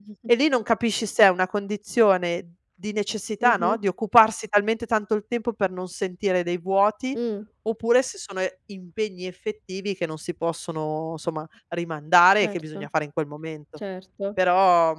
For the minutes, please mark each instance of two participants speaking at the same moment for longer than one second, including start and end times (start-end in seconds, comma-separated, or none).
none